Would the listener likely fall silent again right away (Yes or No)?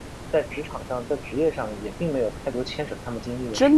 No